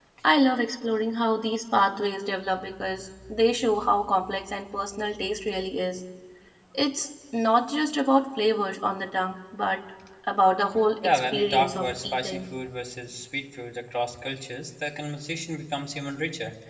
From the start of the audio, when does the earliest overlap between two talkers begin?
11.0 s

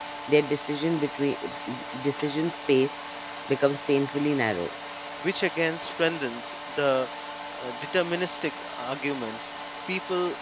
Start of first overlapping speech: none

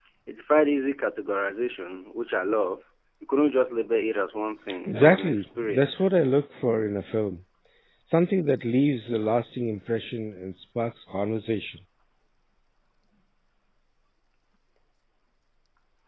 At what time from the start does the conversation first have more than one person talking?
4.9 s

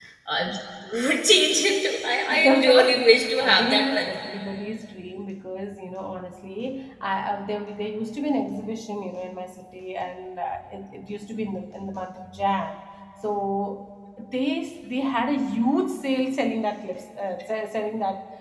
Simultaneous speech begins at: 2.3 s

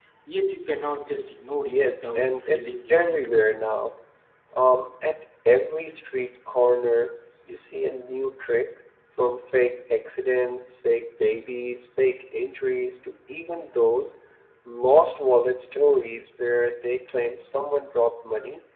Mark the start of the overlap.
1.7 s

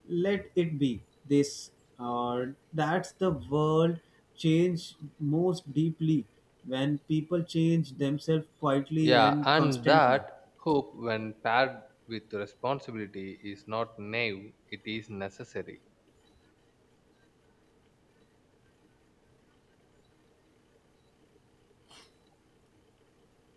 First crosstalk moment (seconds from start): 9.0 s

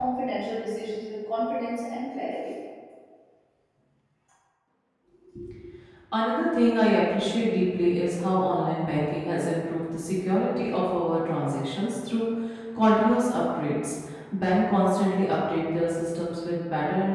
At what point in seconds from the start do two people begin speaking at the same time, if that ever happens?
none

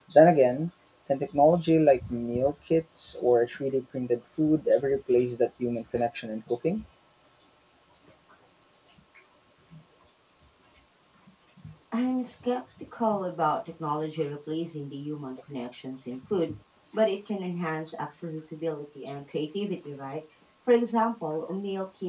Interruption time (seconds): none

